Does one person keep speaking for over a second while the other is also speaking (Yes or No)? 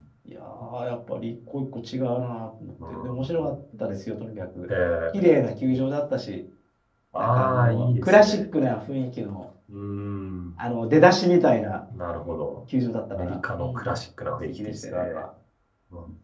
Yes